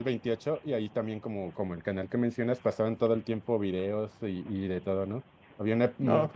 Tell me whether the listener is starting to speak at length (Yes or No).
No